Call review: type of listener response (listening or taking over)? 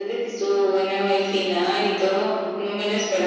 taking over